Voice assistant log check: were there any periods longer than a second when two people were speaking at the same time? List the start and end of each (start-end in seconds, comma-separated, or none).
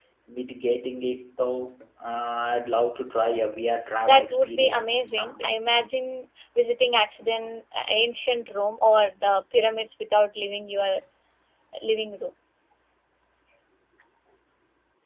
4.0-5.5